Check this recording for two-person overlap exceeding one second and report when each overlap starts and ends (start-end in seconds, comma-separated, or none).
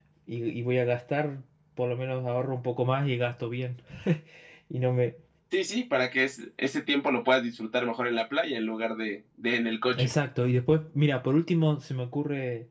none